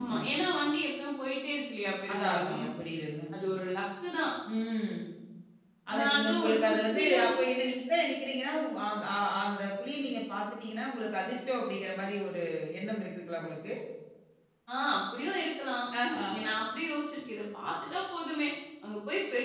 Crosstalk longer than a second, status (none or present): present